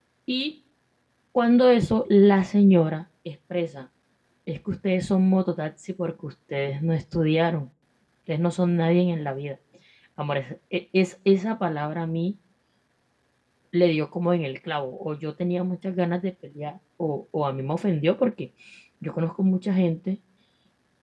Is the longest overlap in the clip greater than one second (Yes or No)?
No